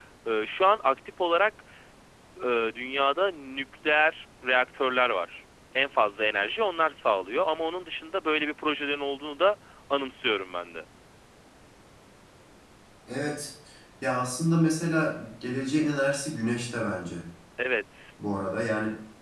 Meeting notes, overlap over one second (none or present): none